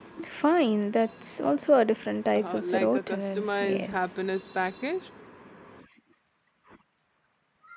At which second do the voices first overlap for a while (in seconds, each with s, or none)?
2.4 s